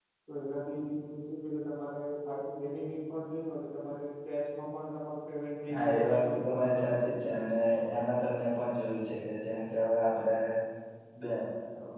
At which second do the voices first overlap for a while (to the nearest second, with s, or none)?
6 s